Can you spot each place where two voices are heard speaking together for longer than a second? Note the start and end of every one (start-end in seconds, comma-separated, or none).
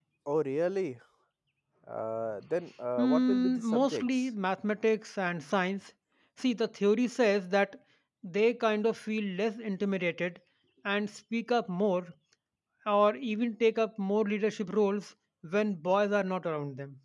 3.0-4.3